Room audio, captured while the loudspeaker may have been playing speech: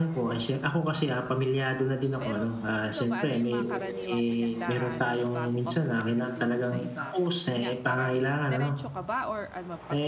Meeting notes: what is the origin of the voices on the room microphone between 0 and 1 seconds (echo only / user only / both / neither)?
echo only